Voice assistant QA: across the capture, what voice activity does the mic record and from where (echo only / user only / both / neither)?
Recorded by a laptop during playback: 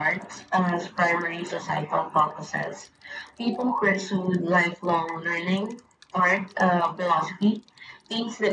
echo only